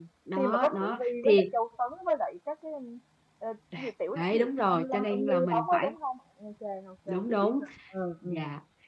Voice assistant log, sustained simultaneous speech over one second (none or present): present